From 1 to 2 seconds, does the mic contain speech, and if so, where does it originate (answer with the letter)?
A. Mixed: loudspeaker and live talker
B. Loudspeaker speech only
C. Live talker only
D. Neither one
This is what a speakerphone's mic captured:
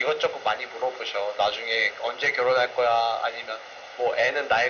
B